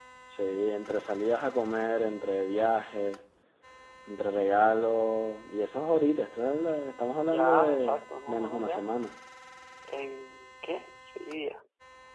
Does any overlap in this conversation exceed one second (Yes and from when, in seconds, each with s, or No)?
Yes, from 7.3 s